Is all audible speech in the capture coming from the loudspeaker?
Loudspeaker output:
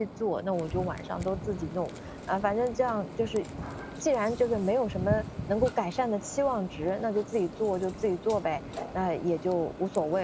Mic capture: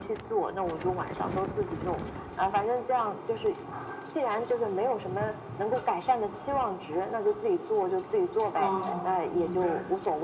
No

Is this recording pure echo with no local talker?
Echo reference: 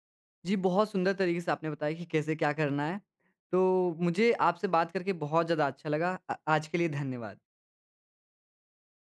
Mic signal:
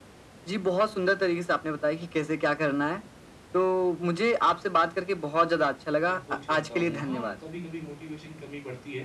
No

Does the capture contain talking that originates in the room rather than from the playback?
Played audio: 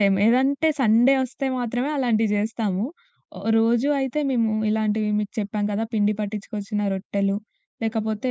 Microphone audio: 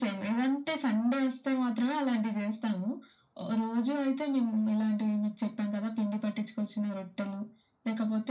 No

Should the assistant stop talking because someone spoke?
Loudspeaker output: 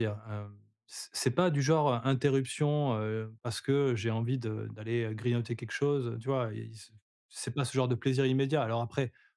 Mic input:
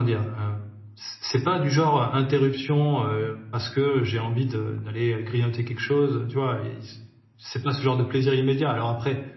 No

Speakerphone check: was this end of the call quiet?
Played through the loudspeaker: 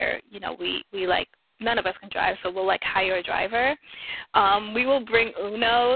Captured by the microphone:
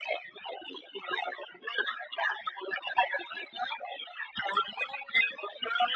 Yes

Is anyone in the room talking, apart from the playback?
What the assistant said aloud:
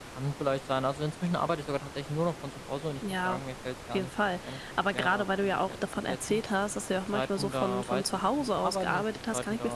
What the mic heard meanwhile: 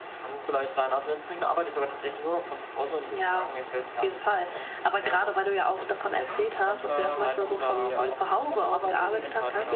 Yes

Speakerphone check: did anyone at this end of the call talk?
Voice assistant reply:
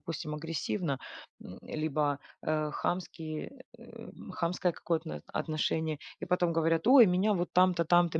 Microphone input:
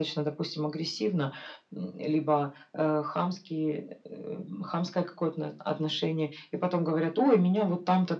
No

